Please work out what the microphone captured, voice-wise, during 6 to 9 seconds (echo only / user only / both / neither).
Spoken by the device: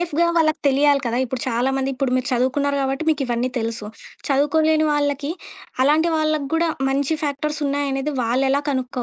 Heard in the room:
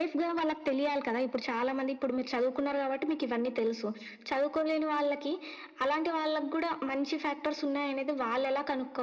echo only